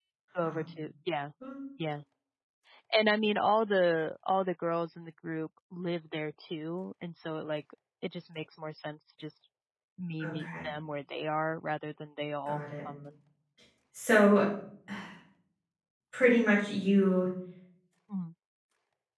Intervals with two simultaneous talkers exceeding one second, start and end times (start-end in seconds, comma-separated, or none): none